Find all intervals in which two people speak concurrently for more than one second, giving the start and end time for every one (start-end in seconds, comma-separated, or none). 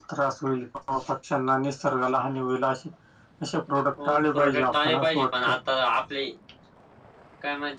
4.0-5.5